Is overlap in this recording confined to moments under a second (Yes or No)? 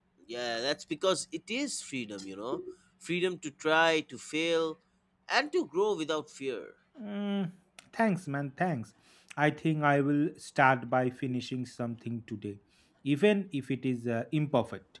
Yes